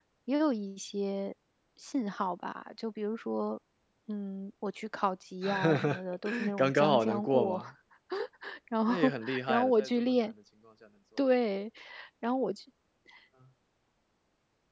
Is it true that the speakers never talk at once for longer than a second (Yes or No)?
No